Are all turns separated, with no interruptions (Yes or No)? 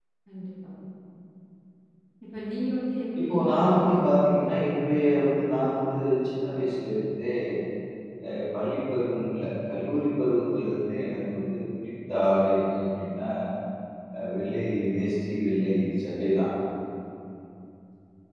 No